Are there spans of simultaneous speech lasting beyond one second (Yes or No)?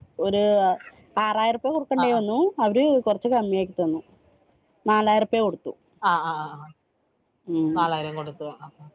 No